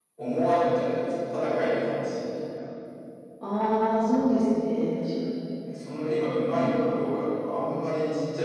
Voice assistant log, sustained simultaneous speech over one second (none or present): none